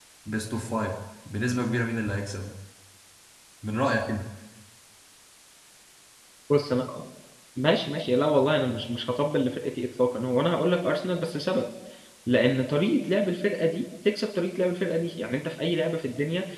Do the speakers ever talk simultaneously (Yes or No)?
No